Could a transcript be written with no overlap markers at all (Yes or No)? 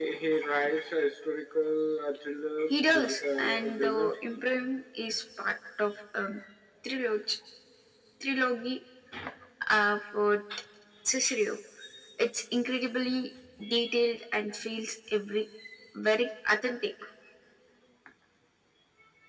No